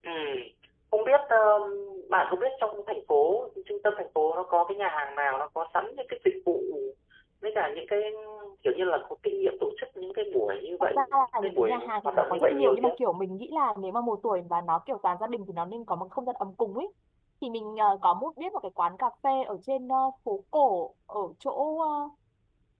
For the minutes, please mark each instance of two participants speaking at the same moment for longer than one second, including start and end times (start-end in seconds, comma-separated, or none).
11.4-12.9